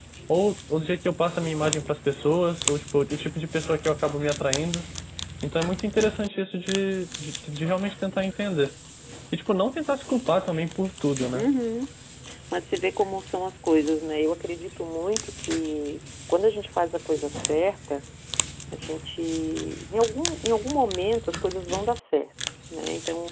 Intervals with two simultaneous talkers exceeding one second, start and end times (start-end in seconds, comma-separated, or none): none